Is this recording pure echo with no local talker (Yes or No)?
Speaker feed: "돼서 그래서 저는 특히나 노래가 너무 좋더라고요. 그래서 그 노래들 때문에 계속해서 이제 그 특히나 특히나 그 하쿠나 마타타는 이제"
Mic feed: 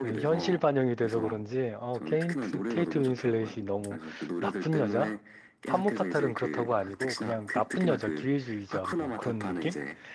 No